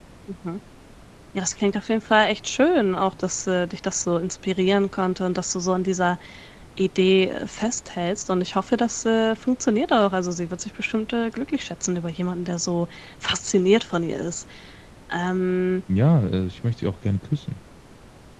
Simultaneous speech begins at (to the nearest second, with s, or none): none